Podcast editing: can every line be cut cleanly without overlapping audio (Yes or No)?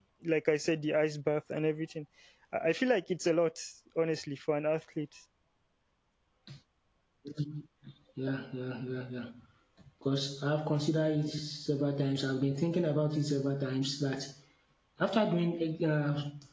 Yes